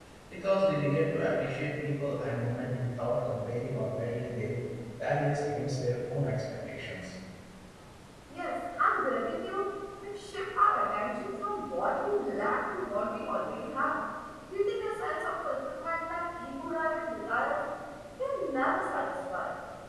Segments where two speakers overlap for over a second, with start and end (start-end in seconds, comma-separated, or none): none